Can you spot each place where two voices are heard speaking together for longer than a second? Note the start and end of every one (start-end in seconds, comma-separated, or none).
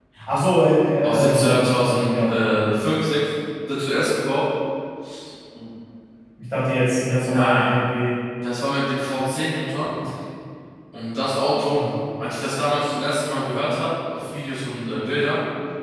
1.0-2.5